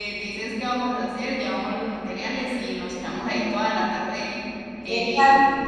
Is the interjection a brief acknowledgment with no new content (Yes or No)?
No